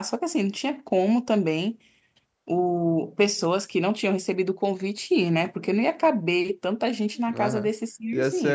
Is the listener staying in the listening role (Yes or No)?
No